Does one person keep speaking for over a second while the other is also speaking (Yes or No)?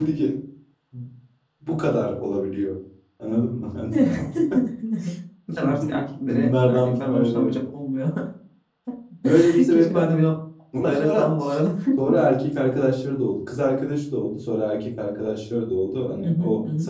Yes